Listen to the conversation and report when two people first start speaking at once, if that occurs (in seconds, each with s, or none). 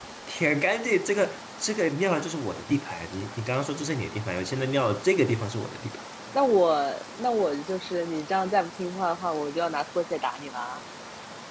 none